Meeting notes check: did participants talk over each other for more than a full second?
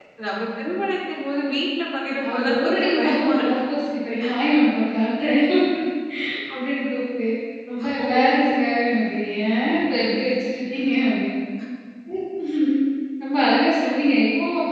Yes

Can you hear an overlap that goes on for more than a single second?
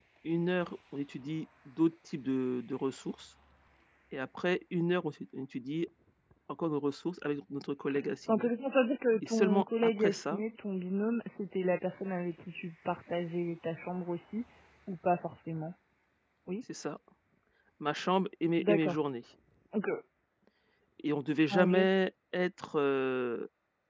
Yes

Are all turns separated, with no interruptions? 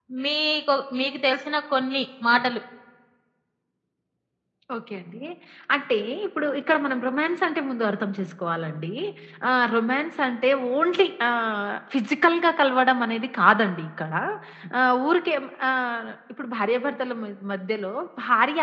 Yes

